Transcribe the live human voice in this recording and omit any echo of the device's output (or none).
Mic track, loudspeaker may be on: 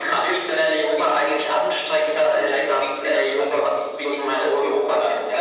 none